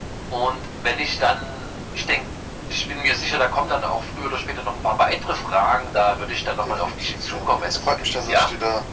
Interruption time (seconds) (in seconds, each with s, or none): 6.7 s